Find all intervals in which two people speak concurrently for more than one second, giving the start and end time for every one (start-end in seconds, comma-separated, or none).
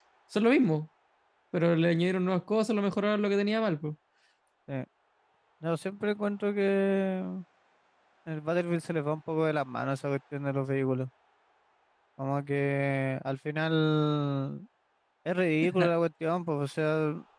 none